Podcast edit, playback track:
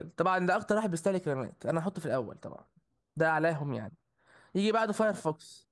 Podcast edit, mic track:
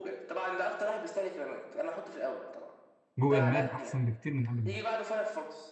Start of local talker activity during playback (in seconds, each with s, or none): 3.2 s